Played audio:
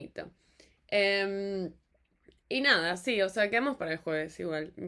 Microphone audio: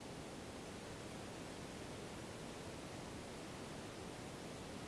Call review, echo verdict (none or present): none